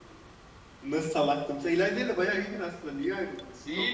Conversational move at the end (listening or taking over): taking over